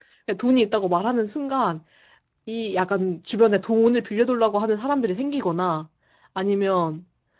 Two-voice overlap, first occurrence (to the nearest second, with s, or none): none